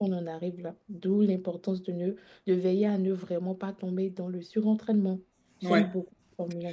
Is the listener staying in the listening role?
Yes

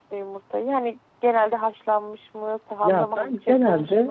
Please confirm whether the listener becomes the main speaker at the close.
Yes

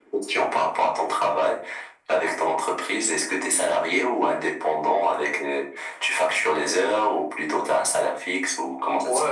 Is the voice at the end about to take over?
Yes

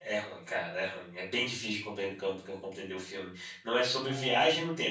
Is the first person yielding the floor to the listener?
No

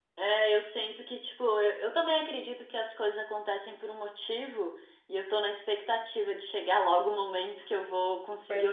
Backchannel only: Yes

